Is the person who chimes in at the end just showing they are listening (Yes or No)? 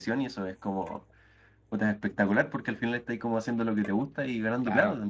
No